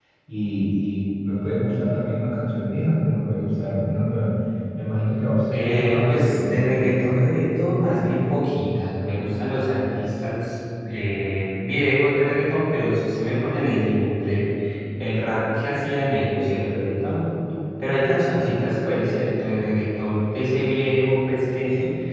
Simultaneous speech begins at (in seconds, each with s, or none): 5.5 s